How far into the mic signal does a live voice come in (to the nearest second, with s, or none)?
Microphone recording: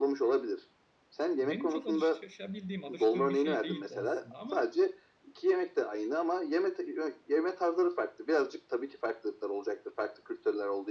1 s